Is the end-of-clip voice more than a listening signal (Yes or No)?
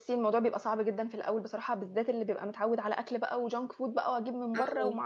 No